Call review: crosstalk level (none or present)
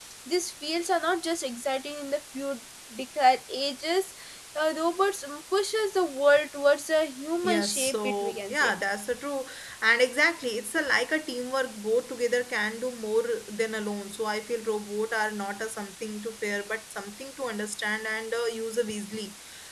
present